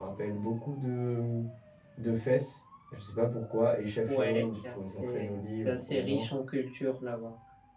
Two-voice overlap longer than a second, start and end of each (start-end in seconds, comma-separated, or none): 4.1-6.2